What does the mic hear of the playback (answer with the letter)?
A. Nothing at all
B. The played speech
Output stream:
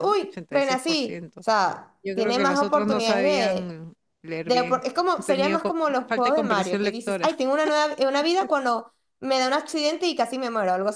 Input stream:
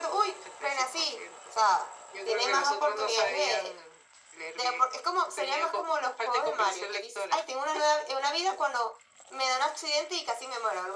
B